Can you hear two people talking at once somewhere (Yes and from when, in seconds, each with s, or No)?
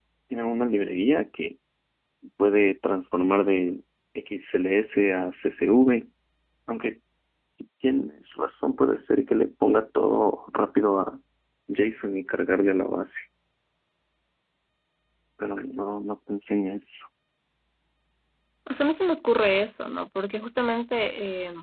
No